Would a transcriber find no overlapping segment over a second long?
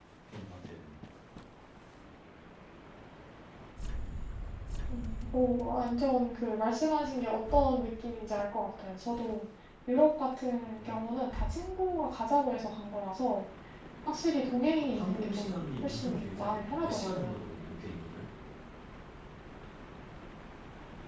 No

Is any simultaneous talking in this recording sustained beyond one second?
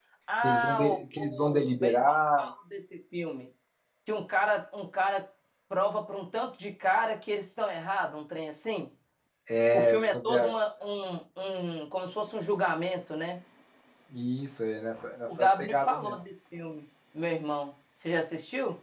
Yes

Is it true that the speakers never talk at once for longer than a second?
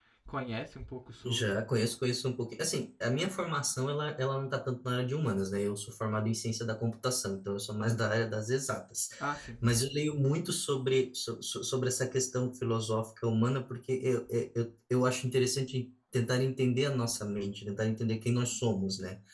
Yes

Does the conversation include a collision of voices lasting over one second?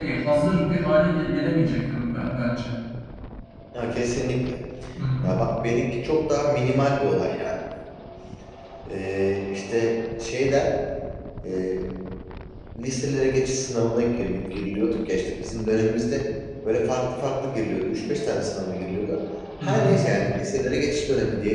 No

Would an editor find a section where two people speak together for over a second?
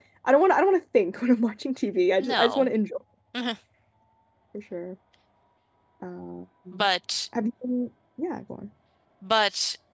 No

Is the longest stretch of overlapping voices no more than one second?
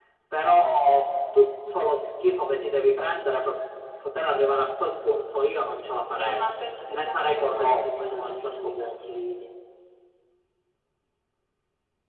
No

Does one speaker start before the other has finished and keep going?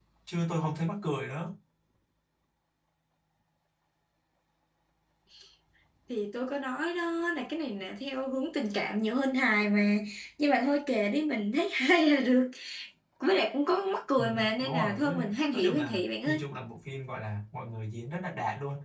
Yes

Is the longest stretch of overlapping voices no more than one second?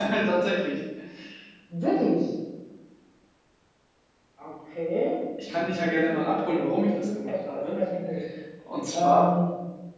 No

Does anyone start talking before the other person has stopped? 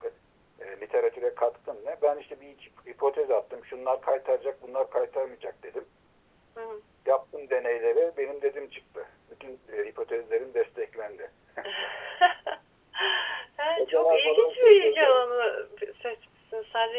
Yes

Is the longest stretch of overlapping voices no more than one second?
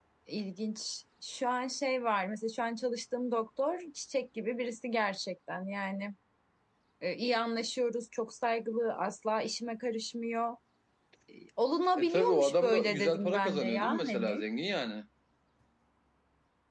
No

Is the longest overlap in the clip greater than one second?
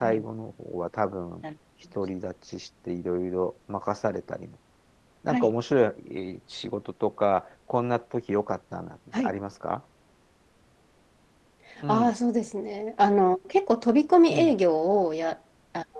No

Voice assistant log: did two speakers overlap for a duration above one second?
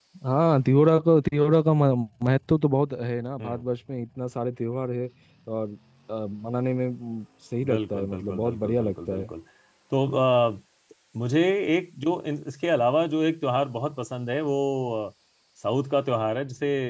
Yes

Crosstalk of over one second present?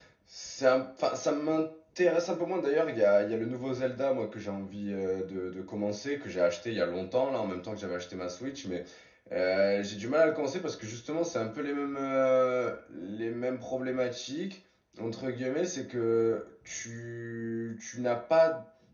No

